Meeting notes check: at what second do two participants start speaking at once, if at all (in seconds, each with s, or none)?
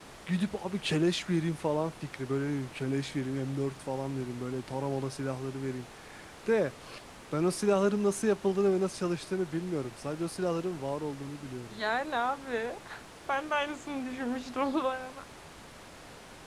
none